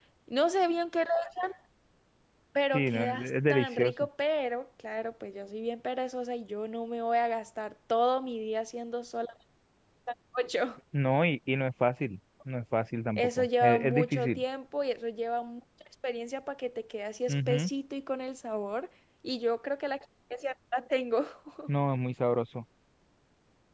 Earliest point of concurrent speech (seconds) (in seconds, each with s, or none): 2.7 s